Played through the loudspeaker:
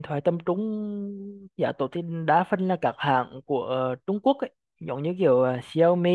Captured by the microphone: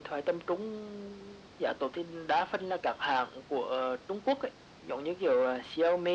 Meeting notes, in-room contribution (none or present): none